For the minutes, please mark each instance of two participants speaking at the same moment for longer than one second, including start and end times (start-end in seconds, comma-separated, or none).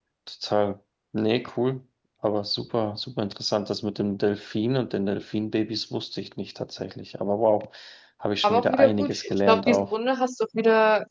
8.4-9.9